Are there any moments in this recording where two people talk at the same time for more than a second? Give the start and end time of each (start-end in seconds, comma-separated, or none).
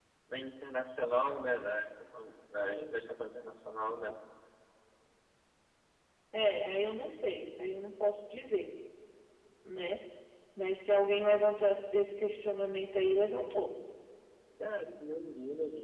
none